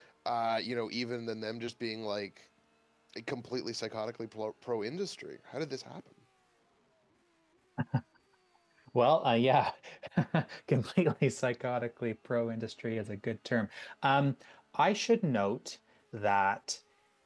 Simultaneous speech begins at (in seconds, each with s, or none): none